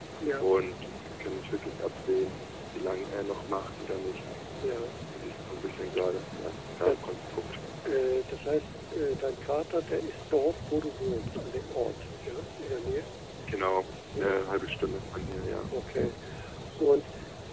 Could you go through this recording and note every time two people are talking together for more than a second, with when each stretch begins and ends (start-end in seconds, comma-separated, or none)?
none